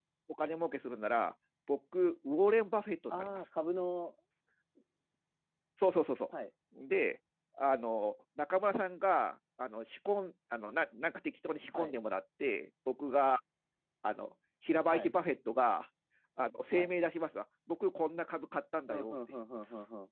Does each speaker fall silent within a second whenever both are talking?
Yes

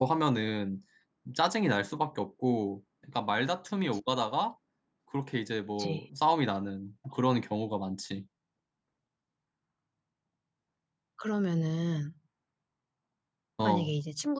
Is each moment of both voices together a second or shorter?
Yes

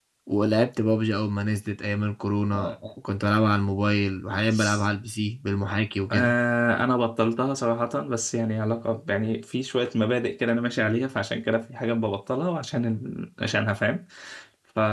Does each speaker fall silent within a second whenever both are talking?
Yes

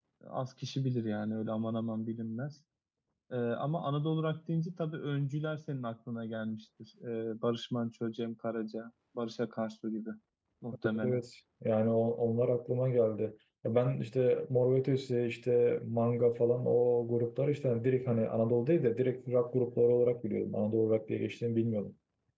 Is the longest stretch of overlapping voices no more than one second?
Yes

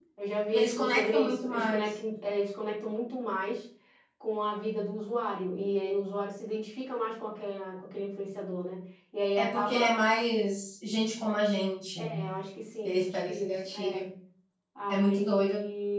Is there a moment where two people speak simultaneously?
Yes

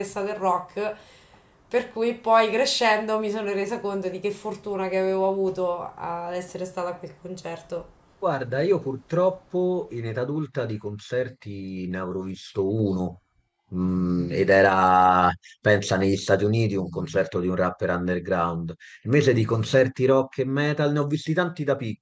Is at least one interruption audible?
No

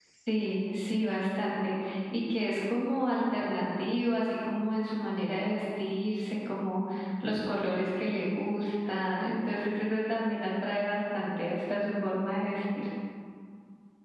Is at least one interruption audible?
No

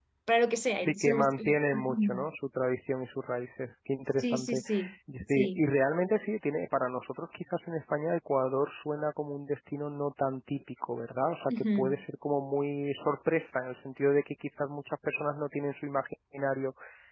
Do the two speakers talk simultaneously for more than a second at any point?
Yes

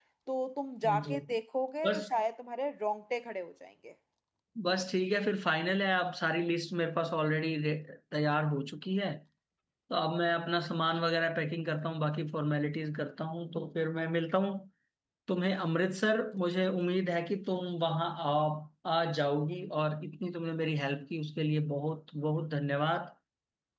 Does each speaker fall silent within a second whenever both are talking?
Yes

